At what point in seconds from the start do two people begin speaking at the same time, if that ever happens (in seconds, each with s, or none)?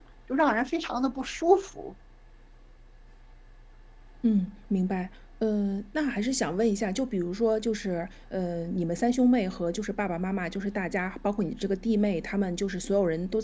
none